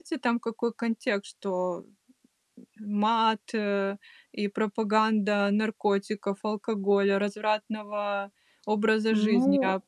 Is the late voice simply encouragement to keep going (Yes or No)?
No